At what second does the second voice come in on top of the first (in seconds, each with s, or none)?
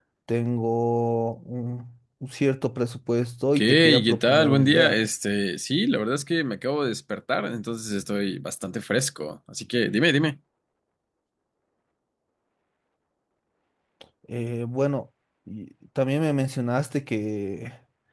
3.6 s